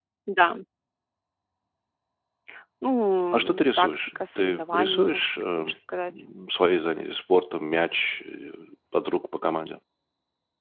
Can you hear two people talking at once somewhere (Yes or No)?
Yes